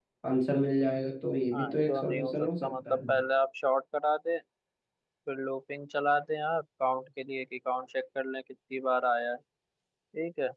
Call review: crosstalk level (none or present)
present